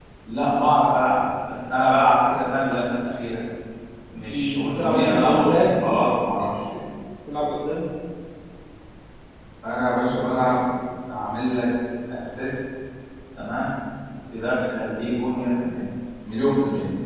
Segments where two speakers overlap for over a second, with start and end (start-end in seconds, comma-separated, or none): 4.3-6.0